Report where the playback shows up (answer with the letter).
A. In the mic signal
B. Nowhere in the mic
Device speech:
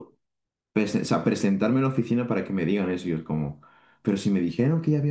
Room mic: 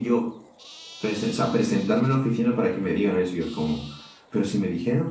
A